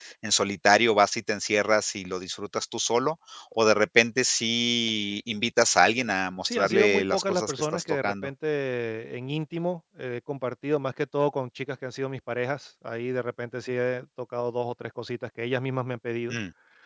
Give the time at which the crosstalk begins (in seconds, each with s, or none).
6.4 s